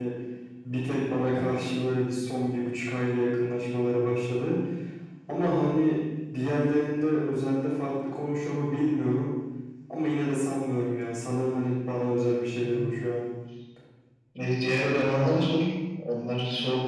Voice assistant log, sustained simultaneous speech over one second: none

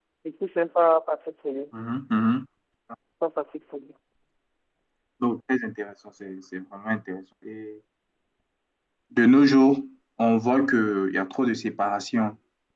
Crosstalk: none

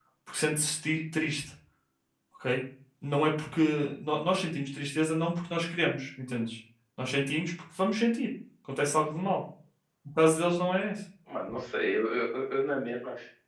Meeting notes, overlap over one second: none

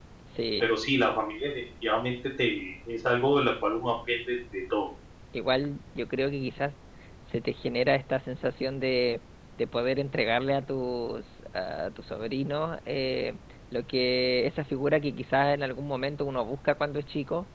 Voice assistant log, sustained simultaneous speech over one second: none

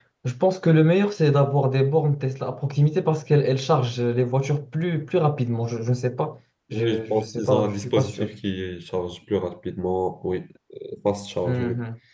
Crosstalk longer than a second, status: present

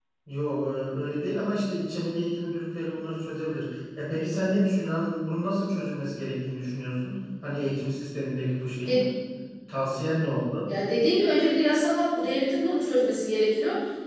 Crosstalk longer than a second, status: none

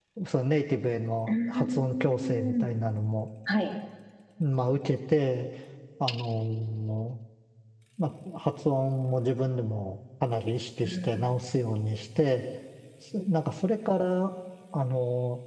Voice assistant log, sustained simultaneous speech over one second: present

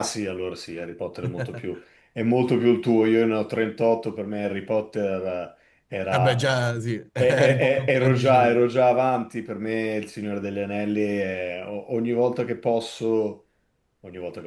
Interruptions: present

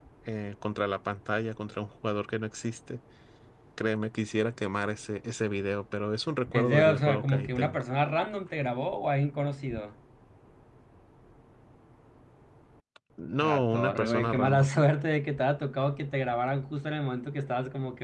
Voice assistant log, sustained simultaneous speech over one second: present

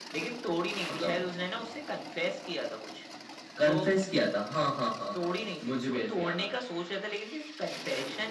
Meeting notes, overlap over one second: present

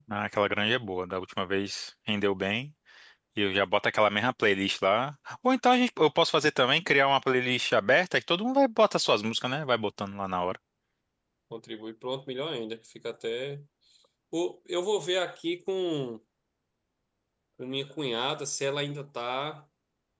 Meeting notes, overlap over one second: none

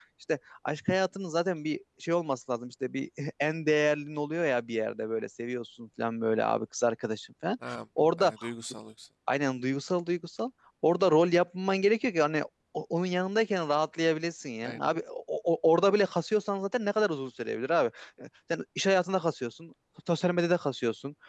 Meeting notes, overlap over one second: none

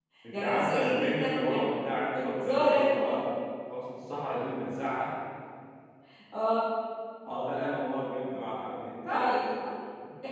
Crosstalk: present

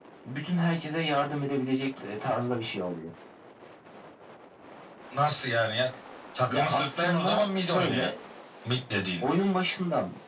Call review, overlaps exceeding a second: present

